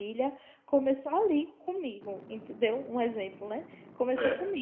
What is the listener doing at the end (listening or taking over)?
listening